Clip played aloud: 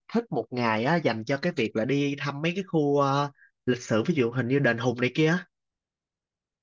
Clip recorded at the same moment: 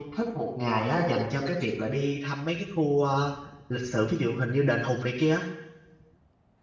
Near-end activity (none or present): none